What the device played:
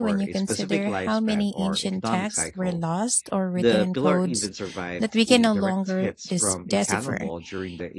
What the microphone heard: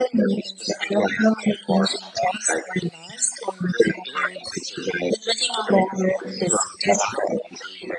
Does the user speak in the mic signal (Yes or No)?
No